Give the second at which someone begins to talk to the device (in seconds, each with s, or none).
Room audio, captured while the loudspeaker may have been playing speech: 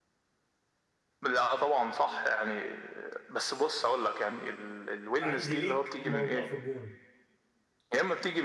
5.2 s